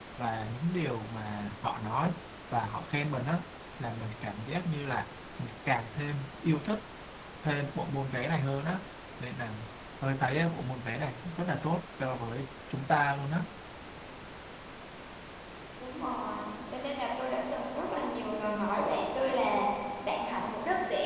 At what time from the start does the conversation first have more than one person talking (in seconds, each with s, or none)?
none